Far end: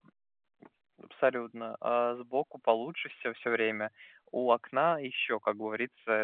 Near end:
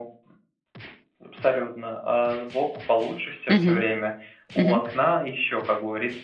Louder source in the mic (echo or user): user